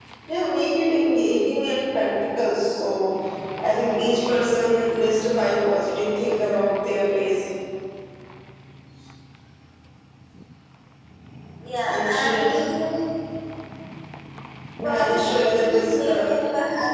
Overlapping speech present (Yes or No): Yes